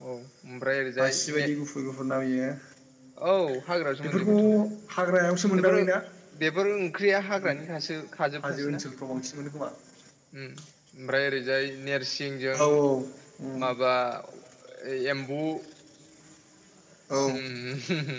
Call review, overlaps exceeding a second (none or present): none